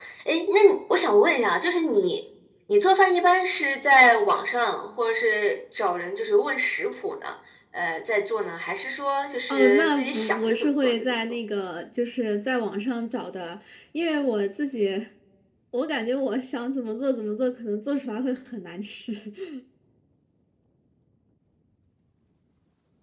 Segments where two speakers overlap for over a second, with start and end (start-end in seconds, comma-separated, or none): 9.5-11.2